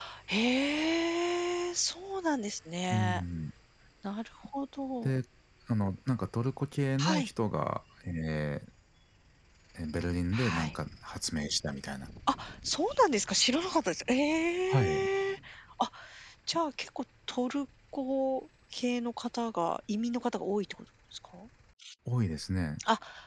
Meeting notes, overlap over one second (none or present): none